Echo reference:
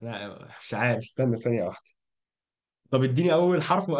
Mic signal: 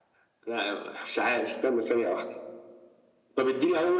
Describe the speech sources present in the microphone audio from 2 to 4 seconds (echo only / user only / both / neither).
echo only